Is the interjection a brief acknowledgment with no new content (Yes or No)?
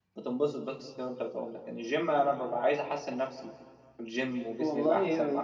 No